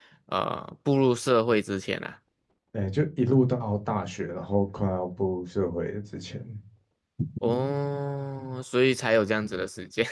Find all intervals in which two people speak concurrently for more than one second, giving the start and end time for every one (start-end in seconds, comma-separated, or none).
none